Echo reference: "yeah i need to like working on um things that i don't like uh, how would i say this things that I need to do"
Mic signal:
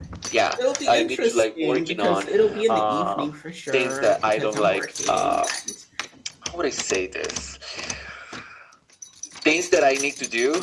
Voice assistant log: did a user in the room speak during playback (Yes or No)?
Yes